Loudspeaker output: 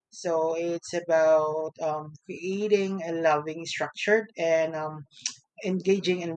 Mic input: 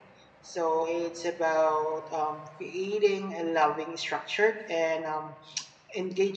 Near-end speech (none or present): none